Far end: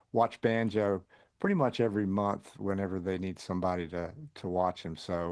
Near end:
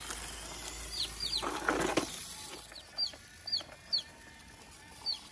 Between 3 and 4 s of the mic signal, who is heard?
neither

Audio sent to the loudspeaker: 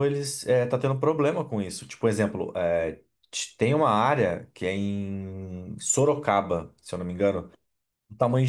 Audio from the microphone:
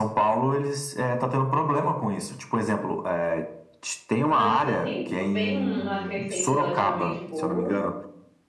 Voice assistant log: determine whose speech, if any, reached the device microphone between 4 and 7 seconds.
both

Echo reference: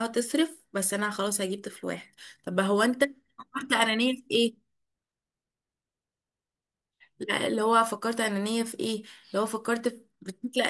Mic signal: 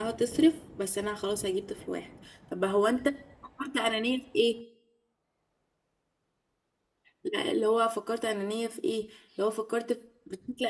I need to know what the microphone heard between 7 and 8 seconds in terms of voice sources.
echo only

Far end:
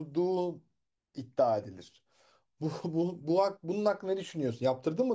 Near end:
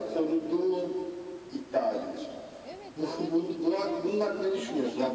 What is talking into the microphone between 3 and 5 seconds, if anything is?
both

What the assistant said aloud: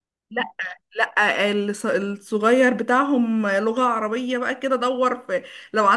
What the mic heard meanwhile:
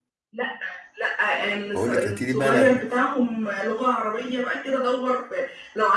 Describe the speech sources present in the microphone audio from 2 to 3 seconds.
both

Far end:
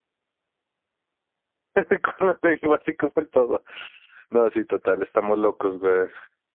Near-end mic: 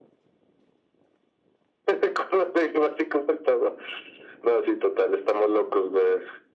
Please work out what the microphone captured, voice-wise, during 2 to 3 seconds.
echo only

